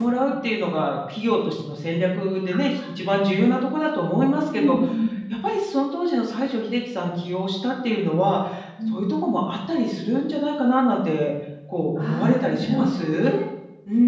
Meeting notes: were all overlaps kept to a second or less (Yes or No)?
No